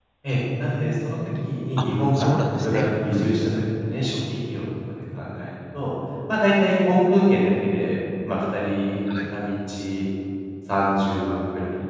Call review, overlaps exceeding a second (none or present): present